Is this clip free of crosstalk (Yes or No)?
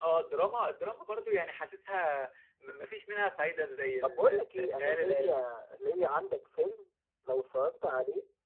No